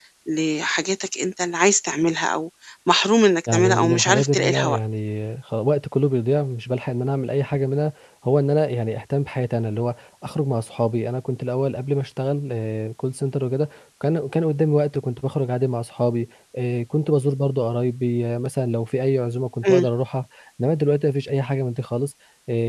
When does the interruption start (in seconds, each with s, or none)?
3.5 s